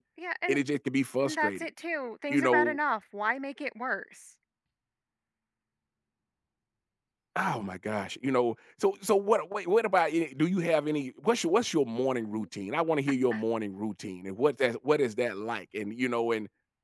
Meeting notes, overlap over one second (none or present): none